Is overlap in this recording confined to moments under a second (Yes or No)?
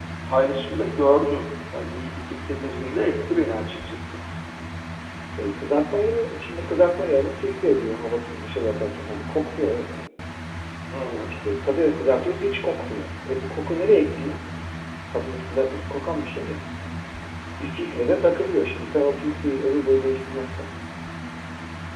Yes